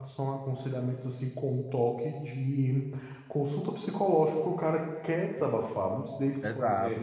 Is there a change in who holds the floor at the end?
Yes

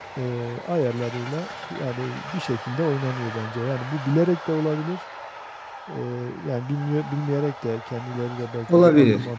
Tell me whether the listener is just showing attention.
Yes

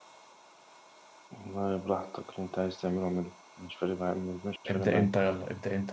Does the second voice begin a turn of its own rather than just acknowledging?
Yes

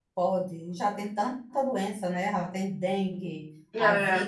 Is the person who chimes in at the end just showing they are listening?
Yes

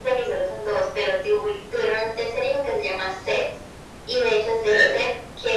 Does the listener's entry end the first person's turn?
No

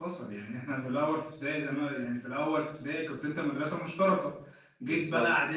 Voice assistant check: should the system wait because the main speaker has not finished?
Yes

